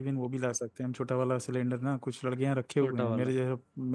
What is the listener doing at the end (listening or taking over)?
listening